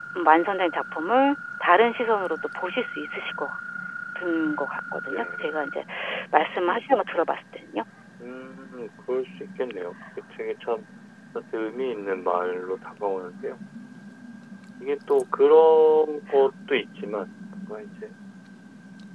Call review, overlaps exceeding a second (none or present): none